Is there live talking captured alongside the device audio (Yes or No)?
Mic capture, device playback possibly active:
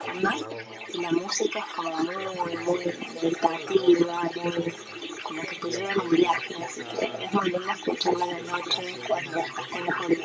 Yes